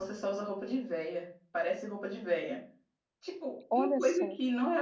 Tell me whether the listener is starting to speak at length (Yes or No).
No